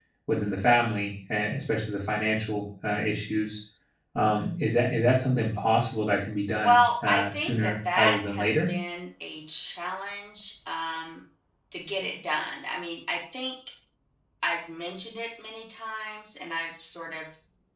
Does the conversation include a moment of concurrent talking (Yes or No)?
Yes